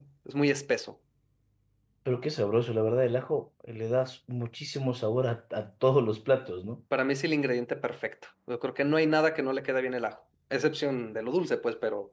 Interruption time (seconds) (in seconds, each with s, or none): none